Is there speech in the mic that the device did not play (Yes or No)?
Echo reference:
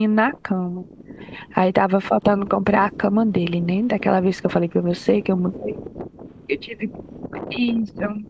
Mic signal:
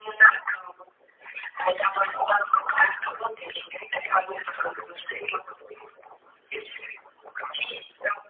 No